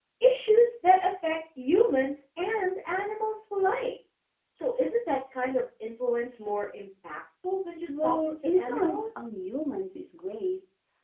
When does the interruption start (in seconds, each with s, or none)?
7.9 s